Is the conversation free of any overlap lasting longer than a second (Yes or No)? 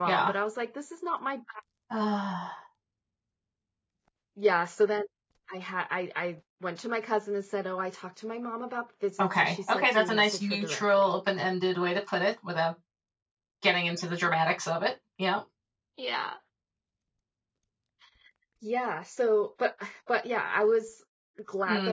No